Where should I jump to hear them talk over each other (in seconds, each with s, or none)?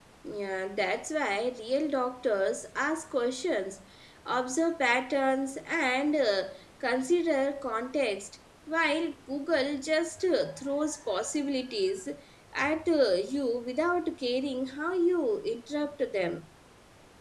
none